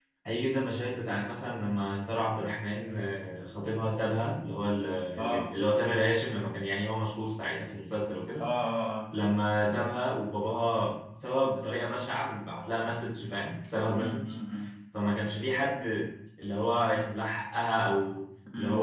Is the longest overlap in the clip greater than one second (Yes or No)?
No